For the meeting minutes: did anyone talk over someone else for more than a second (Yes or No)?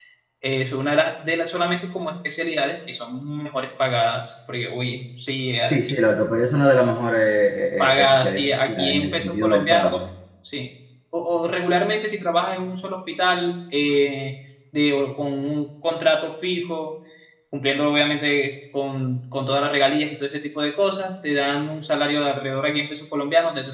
Yes